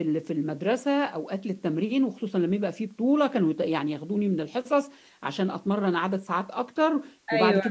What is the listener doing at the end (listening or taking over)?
listening